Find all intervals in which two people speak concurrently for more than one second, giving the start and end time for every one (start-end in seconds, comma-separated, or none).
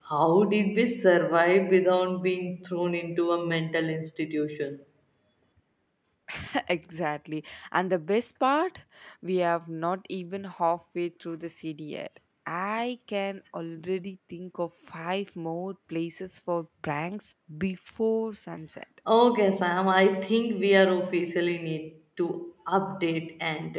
none